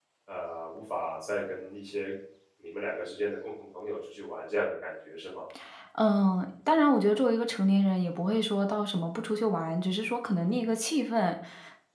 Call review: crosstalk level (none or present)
none